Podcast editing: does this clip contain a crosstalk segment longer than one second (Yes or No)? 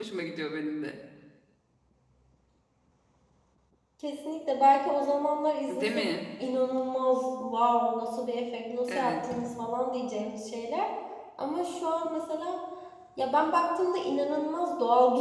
No